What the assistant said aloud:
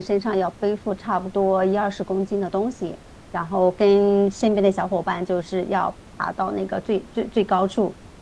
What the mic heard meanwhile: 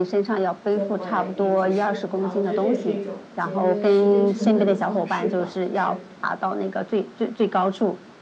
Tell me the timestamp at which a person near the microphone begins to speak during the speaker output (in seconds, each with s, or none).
0.7 s